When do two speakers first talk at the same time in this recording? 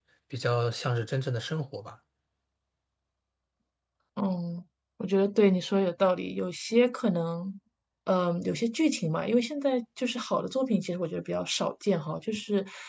none

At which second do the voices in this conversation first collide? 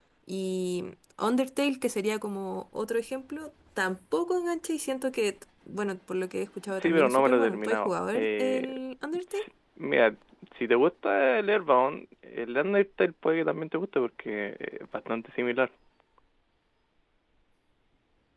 6.7 s

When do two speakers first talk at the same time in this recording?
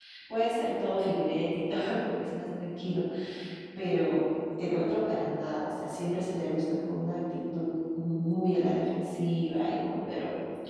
none

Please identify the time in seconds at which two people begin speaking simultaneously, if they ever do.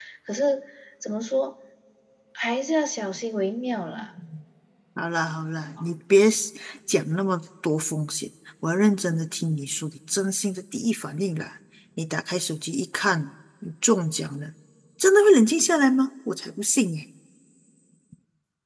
none

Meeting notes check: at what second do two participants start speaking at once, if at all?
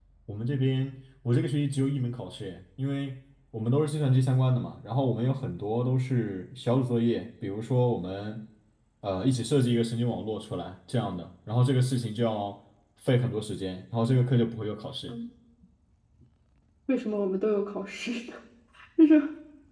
none

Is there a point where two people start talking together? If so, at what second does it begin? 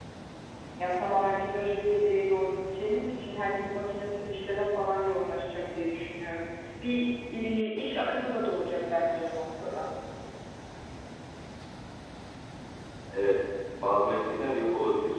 none

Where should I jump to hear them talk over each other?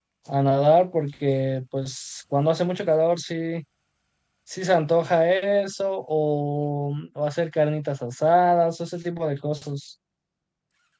none

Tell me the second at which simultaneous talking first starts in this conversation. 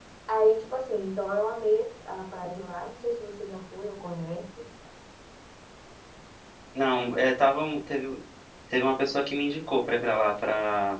none

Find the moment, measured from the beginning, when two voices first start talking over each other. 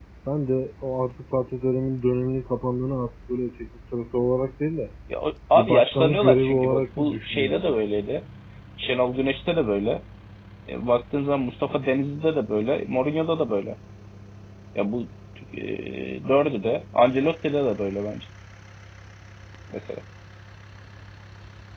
5.5 s

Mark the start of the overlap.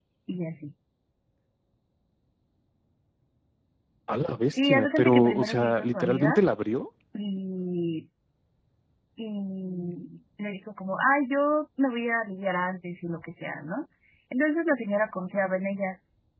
4.5 s

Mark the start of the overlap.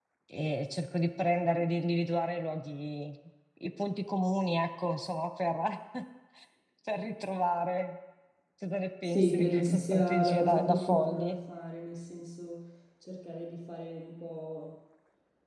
9.0 s

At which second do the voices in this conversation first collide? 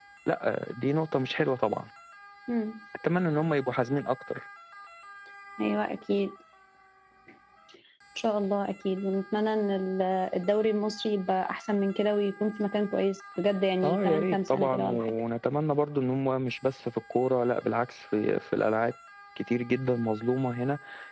13.8 s

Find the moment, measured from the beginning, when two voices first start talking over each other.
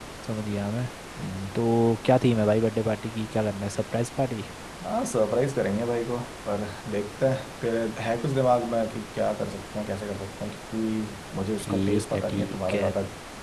11.6 s

